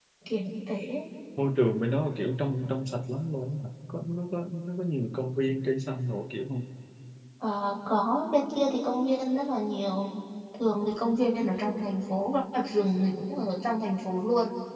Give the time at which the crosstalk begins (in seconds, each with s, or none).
none